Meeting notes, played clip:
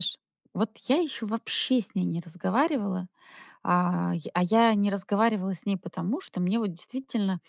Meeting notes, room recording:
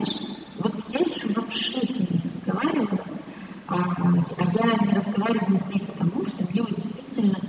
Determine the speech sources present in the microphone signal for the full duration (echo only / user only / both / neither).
echo only